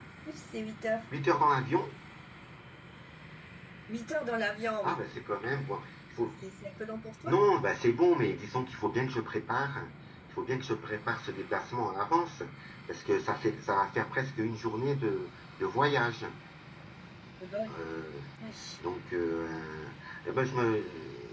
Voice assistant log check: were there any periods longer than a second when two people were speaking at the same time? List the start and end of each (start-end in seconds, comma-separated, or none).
none